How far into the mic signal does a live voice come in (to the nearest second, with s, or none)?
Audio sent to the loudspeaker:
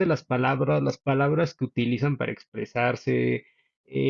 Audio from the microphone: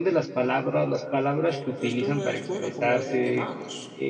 1 s